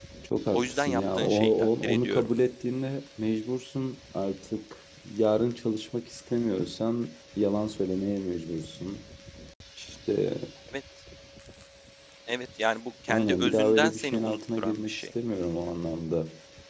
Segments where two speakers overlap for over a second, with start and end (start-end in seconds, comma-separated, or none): 0.5-2.3, 13.1-15.1